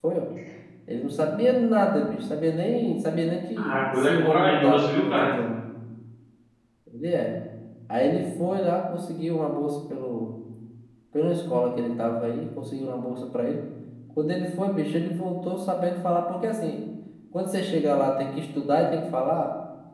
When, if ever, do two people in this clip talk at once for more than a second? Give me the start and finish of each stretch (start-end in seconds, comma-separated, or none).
3.6-5.3